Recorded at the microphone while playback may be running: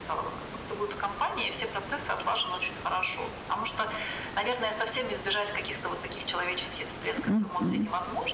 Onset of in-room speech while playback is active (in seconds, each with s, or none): 7.2 s